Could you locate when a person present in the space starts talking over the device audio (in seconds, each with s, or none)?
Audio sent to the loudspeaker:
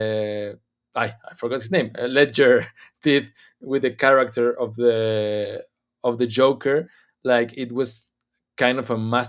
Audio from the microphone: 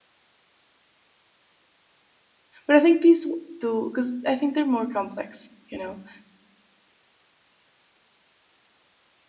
2.7 s